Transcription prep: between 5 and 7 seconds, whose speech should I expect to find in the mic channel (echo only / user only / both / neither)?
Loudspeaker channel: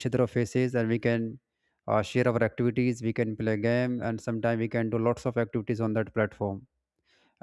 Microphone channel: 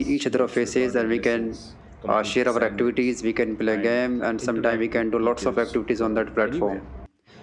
both